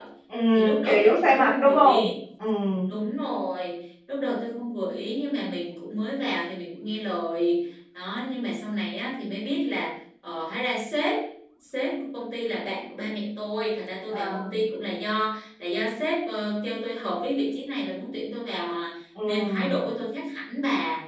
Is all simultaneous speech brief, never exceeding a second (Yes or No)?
No